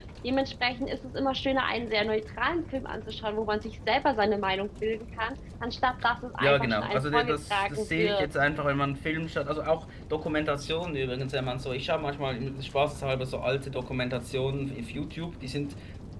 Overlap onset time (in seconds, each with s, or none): 6.4 s